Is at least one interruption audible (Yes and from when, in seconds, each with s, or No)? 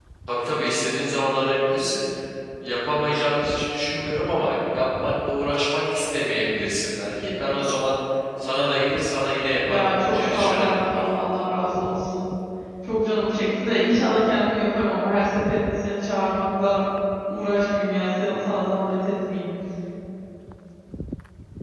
Yes, from 9.6 s